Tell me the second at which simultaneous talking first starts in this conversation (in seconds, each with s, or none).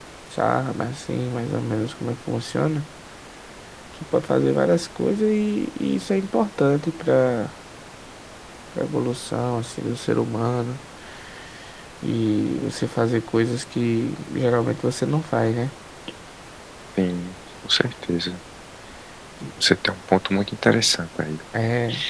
none